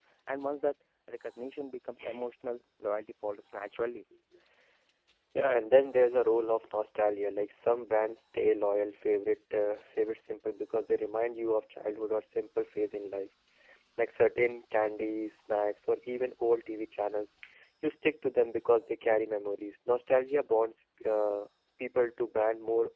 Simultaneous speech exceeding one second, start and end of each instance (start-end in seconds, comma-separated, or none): none